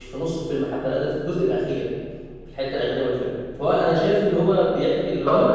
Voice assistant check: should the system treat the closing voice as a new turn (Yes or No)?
No